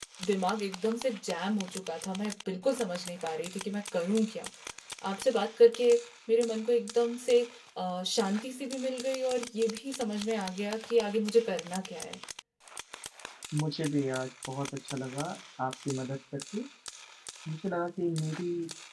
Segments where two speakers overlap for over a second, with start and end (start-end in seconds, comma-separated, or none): none